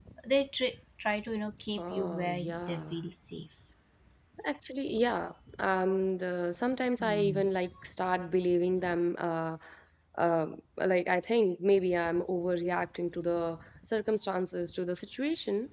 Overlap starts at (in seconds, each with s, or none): 1.8 s